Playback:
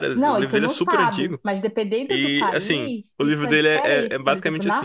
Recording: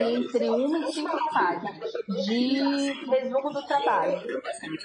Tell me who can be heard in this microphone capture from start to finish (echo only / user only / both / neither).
both